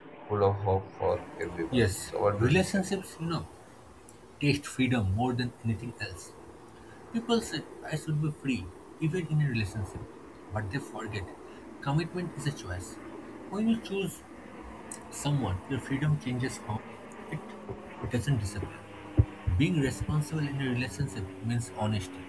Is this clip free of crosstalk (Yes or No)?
No